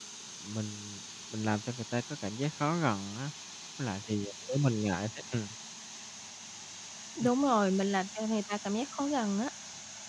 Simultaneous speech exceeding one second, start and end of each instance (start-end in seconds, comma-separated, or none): none